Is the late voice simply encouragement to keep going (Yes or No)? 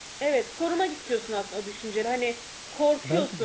Yes